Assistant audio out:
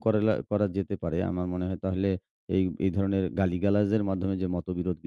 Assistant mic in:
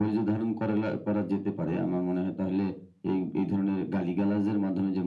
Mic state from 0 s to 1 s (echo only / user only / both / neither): echo only